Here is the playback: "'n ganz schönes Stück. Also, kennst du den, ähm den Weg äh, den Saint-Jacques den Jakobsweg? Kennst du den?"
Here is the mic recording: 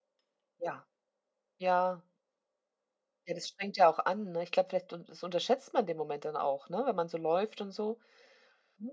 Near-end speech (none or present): present